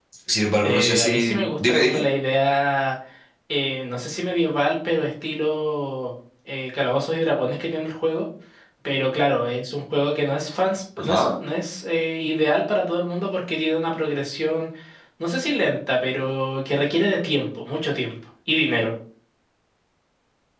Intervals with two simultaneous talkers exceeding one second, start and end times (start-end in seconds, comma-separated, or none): 0.6-2.0